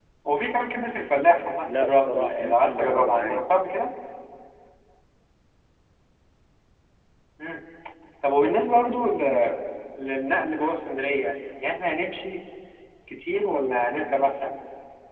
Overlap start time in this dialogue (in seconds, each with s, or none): 1.7 s